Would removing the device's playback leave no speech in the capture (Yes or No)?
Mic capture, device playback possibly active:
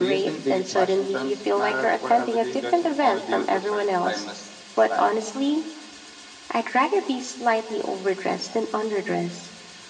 Yes